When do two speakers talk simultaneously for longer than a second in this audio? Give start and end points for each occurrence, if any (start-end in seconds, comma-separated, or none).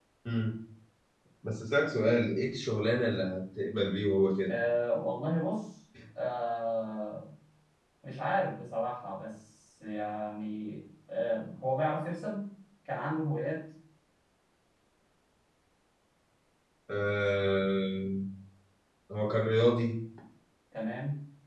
none